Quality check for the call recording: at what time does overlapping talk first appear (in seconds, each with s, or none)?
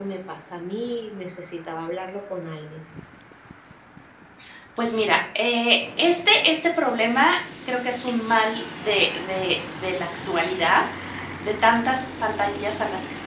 none